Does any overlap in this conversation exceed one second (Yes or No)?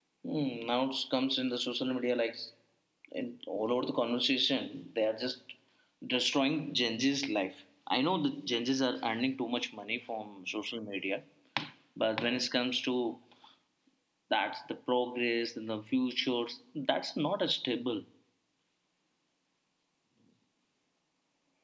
No